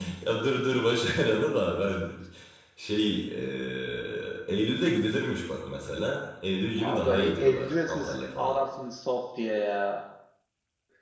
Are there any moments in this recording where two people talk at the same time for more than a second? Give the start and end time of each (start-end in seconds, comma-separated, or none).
6.8-8.6